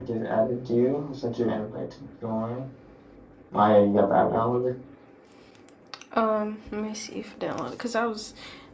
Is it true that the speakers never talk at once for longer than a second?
Yes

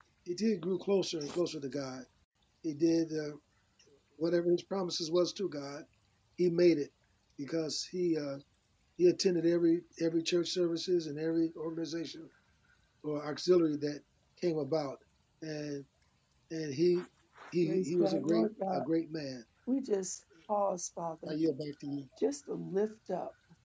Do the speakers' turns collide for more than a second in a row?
Yes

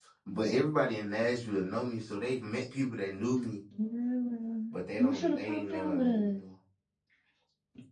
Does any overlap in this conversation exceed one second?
Yes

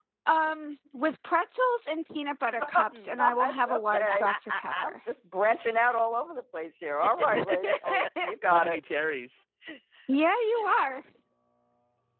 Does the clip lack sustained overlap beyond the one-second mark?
No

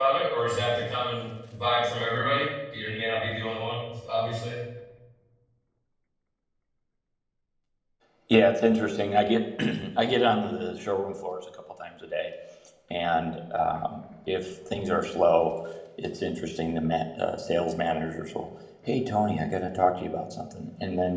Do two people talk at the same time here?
No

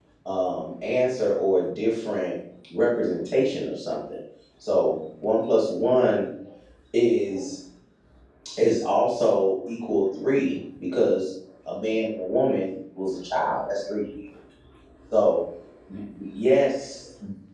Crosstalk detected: No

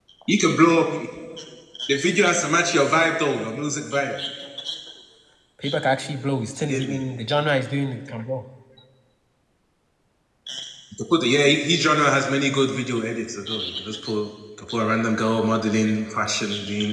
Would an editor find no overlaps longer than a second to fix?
Yes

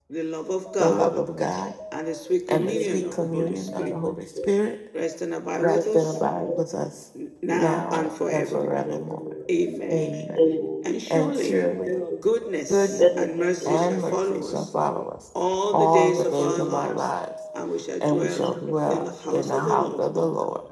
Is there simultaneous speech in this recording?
Yes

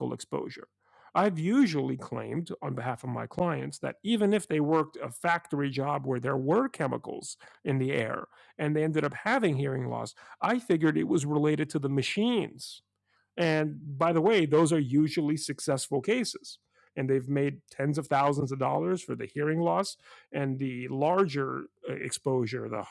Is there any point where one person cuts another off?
No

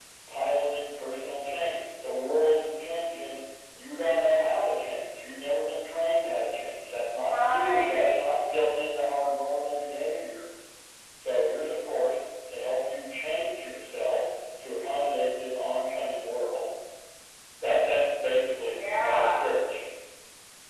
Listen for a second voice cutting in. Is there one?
Yes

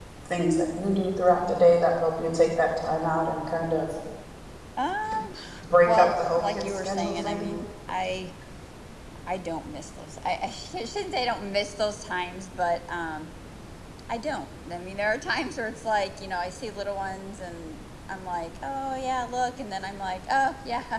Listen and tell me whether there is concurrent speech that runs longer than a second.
Yes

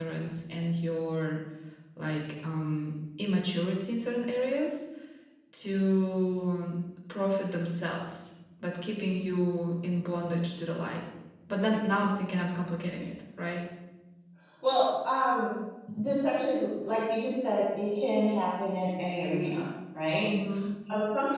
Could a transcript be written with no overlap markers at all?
Yes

